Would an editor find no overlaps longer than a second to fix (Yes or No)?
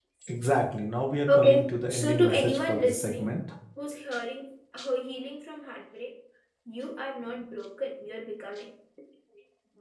No